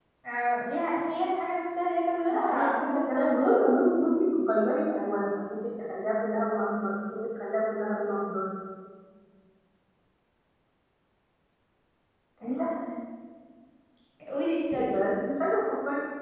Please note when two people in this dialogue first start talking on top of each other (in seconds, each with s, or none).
2.3 s